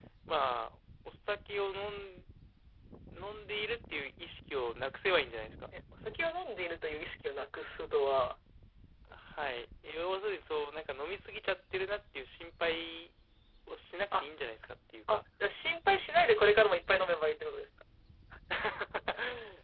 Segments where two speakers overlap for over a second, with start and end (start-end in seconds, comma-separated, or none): none